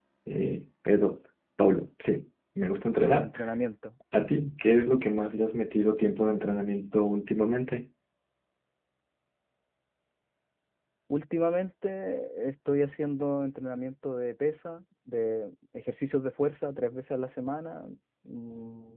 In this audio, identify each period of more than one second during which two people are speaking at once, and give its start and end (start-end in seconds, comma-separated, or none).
none